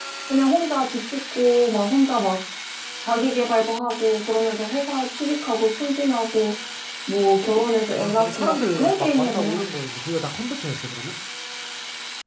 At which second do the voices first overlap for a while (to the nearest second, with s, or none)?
8 s